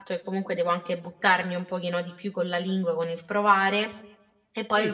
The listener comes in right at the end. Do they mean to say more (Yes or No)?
No